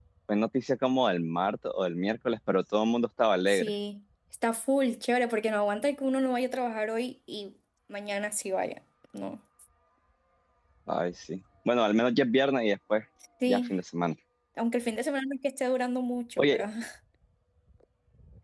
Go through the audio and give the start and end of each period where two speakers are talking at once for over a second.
none

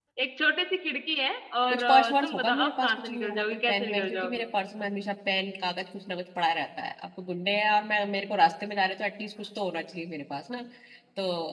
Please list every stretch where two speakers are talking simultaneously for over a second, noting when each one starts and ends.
1.7-4.4

